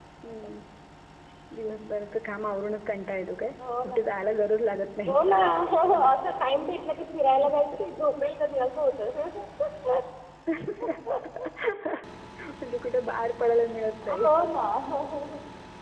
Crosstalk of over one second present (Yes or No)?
No